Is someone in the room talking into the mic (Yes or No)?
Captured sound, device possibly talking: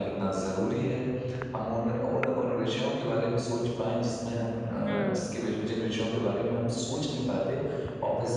Yes